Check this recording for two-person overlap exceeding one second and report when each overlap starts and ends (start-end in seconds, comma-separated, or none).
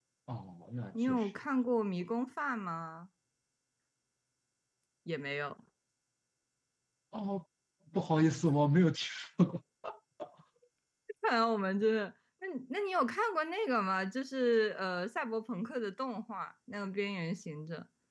none